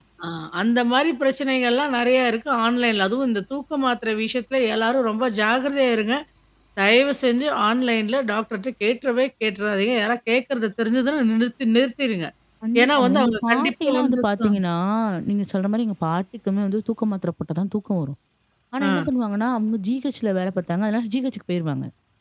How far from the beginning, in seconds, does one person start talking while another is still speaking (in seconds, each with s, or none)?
12.8 s